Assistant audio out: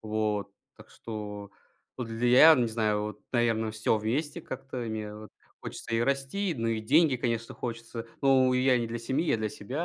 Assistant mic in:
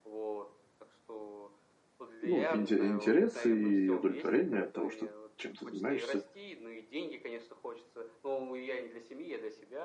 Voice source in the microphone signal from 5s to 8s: both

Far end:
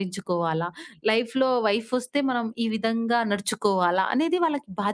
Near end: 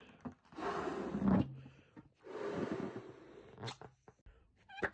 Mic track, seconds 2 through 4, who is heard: neither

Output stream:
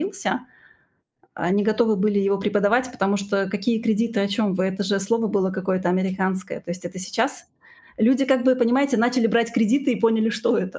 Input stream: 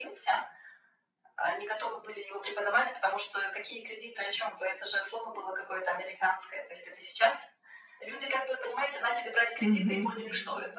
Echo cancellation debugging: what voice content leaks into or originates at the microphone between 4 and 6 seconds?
echo only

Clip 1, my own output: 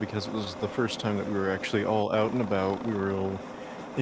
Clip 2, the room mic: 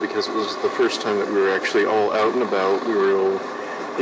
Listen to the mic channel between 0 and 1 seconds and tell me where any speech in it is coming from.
echo only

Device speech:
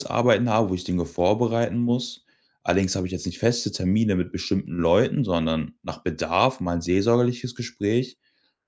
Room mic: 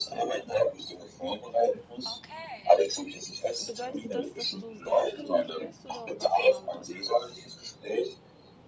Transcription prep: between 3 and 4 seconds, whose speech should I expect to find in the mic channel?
both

